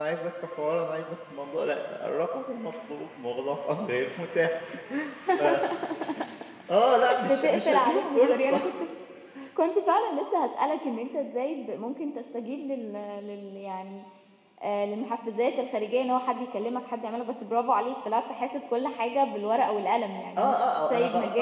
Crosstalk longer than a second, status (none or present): present